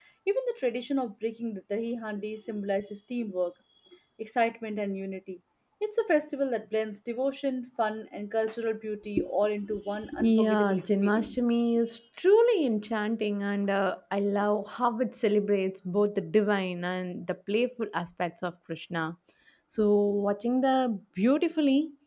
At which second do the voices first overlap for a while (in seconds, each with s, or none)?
10.2 s